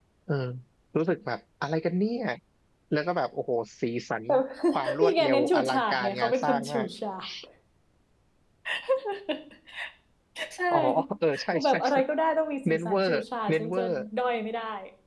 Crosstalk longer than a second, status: present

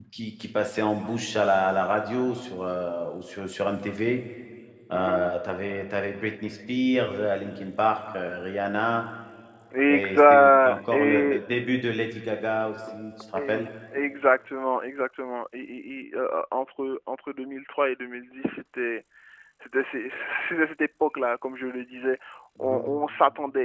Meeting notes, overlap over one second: present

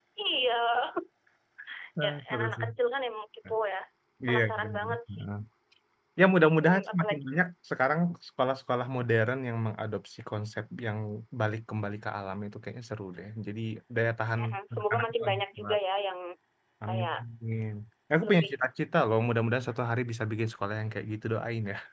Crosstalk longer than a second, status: present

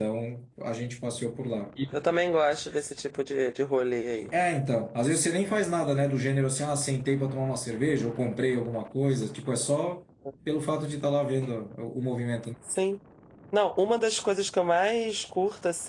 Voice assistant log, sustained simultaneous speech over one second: none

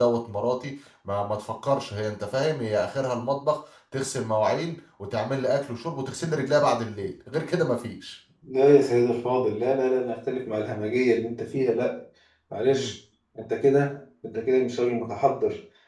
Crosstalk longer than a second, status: none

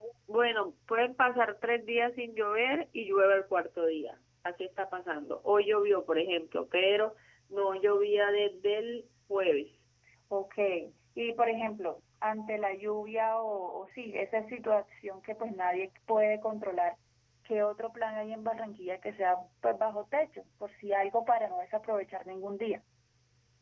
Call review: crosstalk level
none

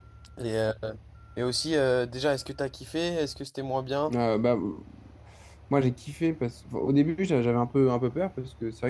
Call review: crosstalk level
none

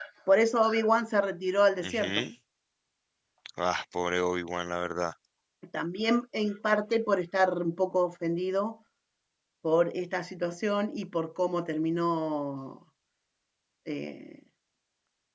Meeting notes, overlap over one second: none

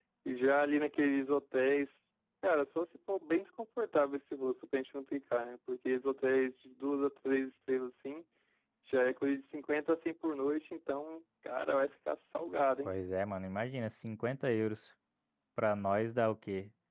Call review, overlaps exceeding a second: none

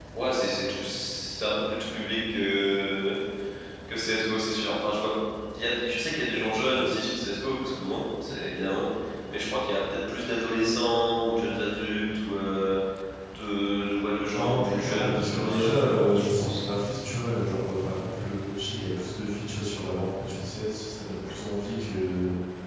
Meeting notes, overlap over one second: present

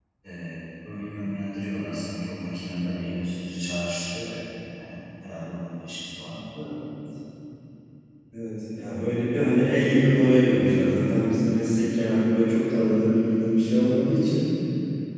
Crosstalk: none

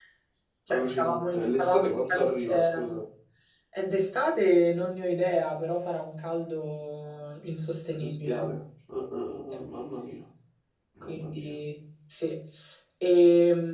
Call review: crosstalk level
present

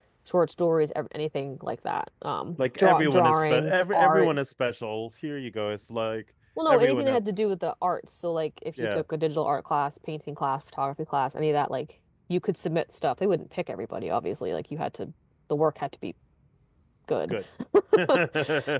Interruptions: present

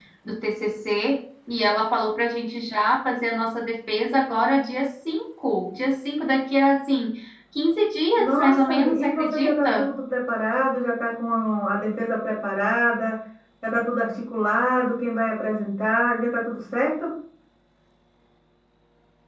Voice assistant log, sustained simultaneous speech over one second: present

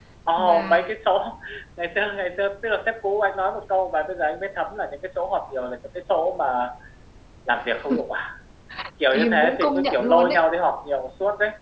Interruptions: present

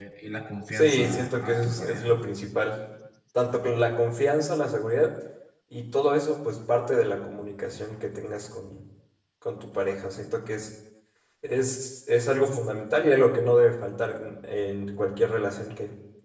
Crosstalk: present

